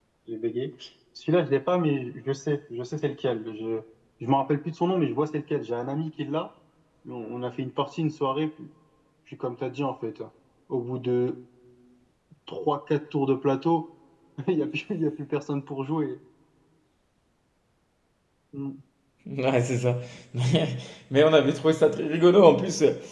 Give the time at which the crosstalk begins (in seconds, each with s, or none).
none